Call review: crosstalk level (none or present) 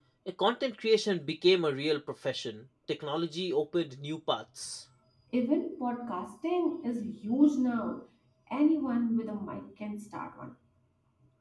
none